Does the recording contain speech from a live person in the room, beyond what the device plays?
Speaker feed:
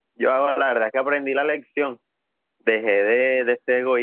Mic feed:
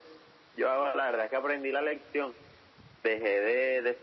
No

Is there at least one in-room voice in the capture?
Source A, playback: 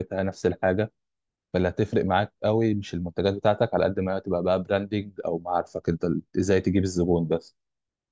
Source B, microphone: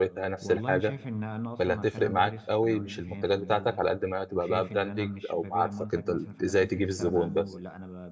Yes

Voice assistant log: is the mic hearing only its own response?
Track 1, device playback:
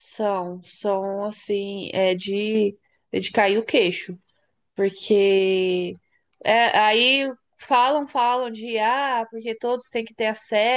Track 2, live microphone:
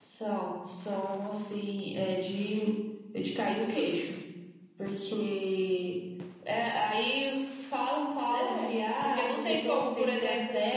No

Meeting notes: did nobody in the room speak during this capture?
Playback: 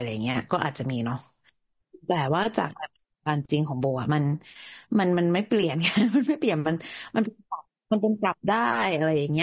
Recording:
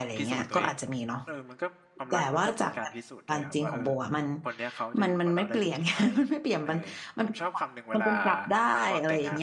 No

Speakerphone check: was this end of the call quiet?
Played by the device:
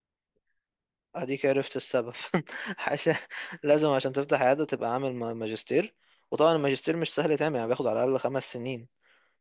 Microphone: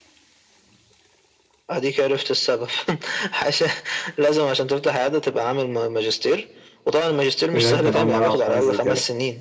No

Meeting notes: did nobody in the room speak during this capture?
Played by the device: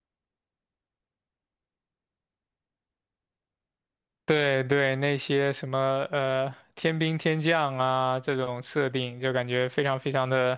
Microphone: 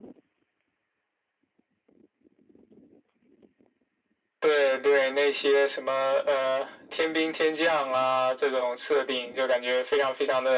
Yes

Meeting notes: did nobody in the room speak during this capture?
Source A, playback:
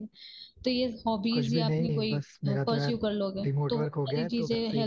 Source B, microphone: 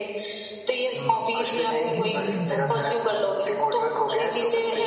No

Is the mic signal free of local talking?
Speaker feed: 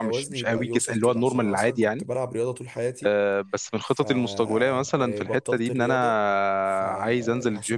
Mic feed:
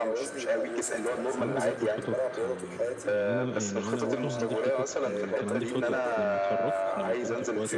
No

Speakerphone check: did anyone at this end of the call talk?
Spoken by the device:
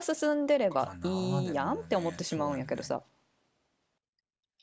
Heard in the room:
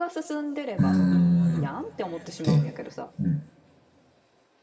Yes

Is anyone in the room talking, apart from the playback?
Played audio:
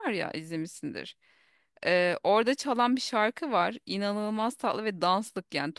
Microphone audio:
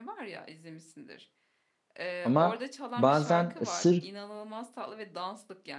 Yes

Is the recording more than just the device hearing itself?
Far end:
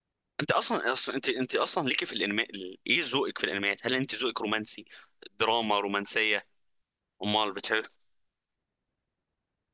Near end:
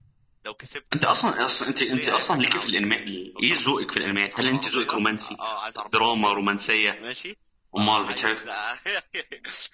Yes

